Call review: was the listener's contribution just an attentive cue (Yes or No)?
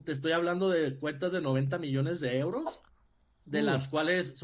Yes